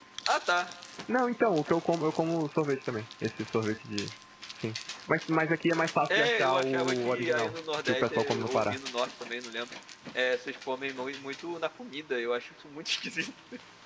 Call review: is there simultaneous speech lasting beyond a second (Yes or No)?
Yes